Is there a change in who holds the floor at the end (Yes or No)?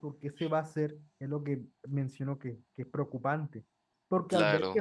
No